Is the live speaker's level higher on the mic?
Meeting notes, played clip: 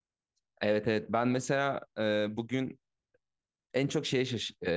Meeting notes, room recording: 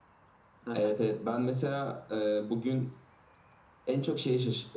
No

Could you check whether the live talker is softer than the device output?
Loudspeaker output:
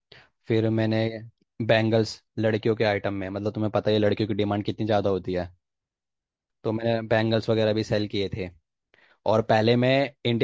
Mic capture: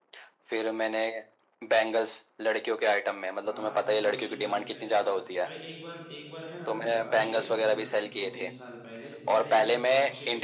Yes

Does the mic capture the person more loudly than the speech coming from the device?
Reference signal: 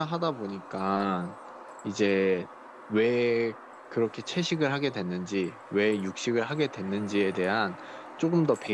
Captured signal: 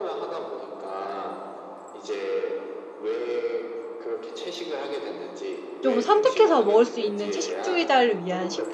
Yes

